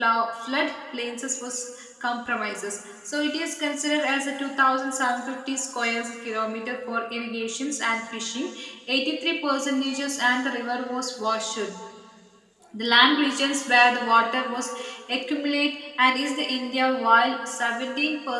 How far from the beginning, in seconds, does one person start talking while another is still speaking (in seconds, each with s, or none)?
none